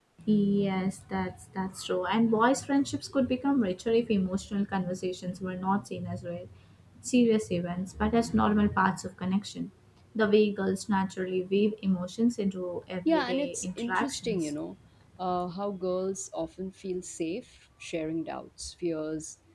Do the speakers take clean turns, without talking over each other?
No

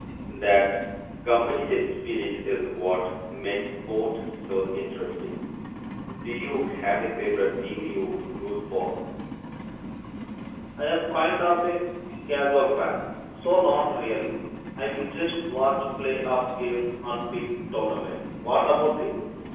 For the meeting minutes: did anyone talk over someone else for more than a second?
No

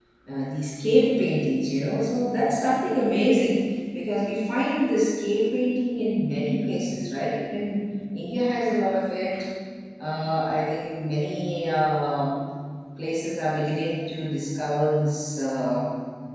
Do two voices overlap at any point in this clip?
No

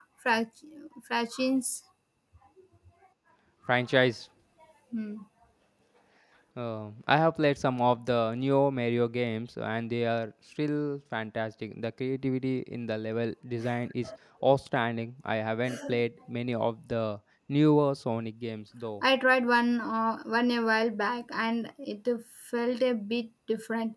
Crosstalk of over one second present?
No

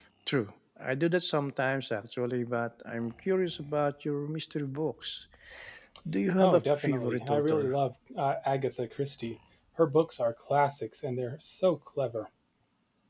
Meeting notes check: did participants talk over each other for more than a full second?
Yes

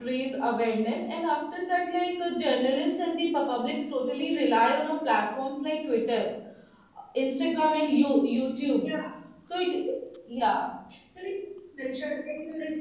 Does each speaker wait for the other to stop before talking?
Yes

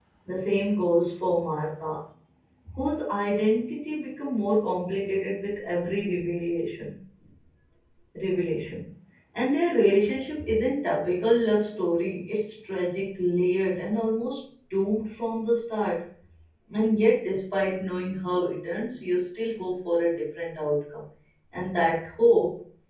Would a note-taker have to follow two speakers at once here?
No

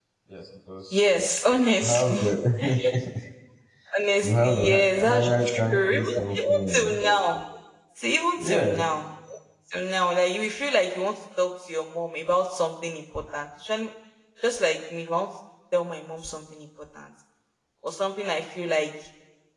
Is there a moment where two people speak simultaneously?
Yes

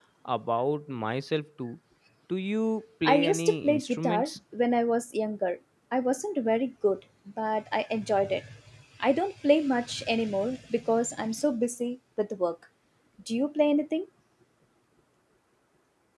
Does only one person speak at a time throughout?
No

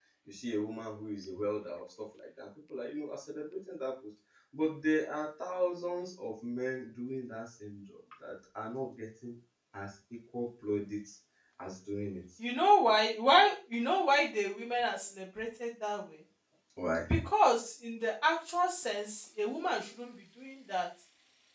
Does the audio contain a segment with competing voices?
No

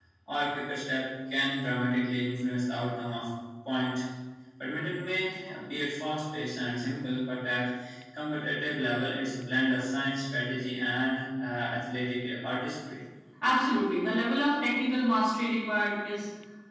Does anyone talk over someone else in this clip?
No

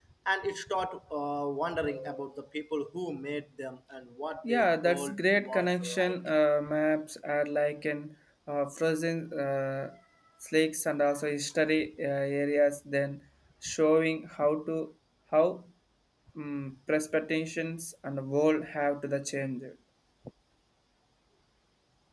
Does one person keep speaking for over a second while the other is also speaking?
Yes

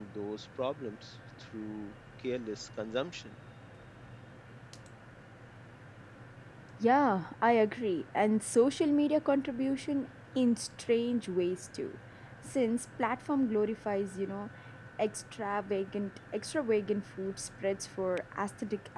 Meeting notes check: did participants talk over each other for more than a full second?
No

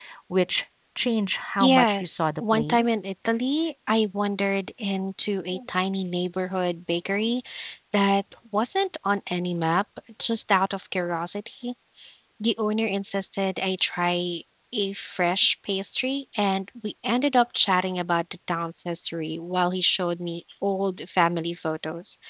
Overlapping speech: Yes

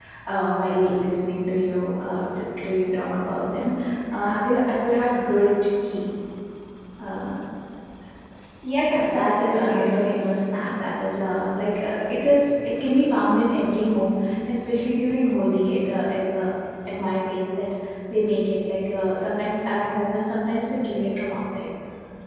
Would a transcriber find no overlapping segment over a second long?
No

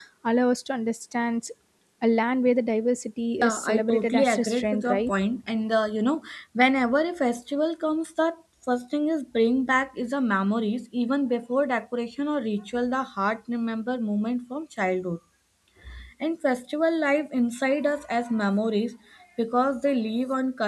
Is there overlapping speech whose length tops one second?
Yes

